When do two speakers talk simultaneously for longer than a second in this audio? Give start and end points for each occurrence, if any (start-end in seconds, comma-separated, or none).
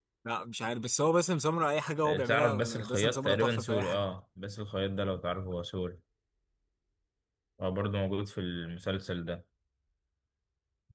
2.2-4.0